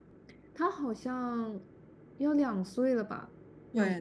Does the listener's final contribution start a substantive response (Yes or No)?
Yes